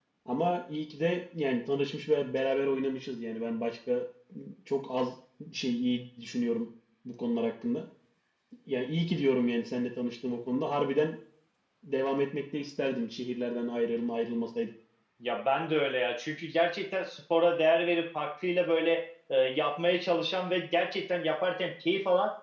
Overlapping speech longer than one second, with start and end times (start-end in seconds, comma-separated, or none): none